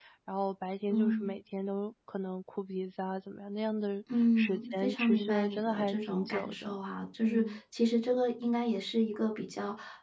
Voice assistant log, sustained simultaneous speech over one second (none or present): present